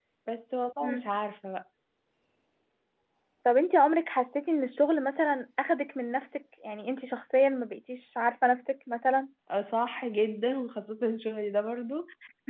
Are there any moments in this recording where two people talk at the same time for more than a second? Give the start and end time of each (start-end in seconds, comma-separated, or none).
none